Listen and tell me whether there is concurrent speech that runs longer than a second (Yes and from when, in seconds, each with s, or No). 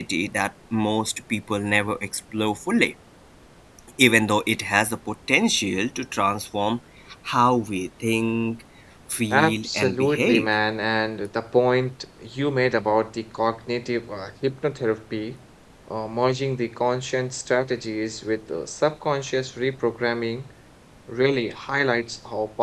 Yes, from 9.3 s